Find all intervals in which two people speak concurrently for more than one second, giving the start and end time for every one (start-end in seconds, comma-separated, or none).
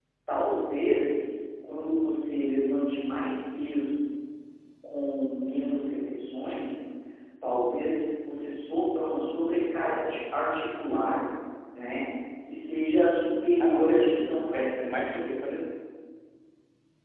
13.6-15.1